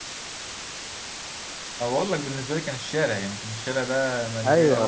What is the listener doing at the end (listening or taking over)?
taking over